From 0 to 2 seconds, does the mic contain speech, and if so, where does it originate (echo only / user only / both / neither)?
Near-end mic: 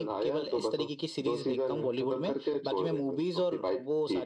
echo only